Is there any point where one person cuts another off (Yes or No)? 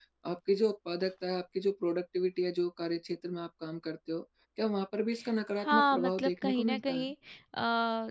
Yes